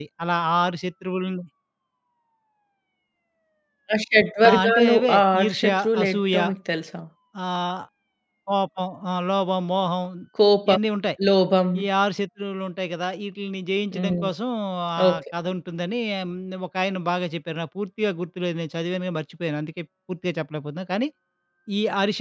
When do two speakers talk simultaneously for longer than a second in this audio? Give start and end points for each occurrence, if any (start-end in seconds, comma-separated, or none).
4.5-6.4